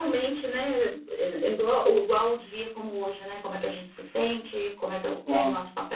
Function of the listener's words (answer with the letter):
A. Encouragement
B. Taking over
A